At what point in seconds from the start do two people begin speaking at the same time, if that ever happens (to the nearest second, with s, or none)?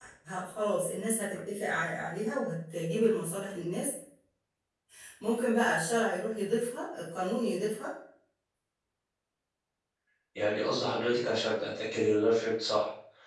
none